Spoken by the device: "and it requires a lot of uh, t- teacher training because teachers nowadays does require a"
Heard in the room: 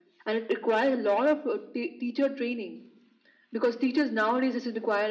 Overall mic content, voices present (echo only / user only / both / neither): echo only